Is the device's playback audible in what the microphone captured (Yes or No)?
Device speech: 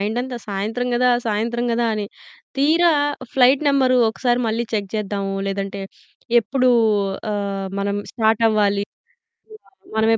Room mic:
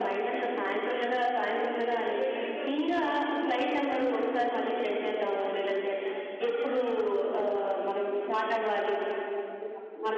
Yes